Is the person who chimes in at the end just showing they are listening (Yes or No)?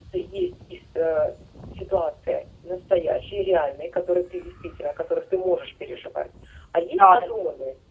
Yes